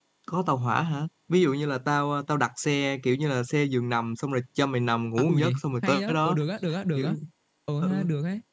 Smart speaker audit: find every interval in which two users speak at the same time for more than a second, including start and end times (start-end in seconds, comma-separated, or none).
5.2-6.4